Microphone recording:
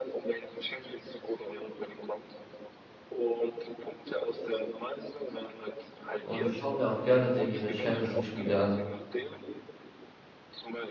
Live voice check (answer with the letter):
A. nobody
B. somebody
B